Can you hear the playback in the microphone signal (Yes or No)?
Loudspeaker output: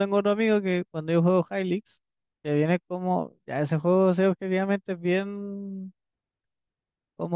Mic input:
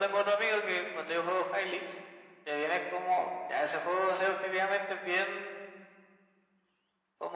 Yes